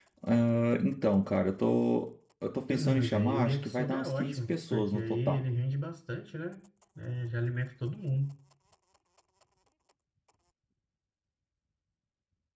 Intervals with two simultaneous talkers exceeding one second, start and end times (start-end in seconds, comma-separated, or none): 2.7-5.4